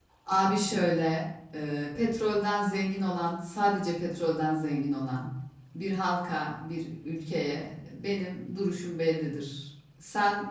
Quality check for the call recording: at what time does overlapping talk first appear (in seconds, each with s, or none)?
none